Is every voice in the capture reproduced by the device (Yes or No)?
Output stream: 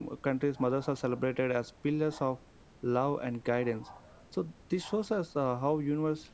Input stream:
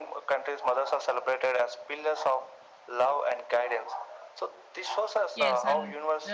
No